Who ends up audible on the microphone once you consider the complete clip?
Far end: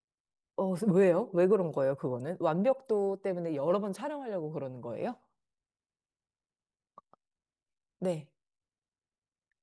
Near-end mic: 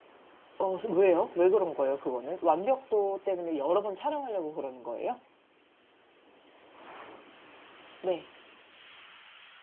echo only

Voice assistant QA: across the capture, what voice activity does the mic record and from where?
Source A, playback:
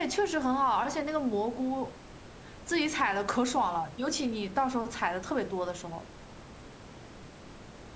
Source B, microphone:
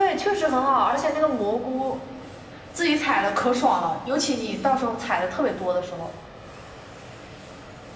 echo only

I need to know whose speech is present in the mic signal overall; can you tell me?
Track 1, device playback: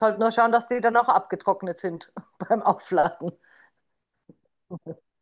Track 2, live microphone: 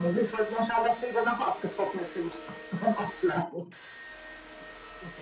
echo only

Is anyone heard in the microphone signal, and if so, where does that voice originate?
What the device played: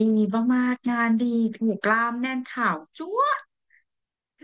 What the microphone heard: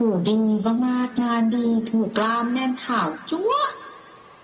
echo only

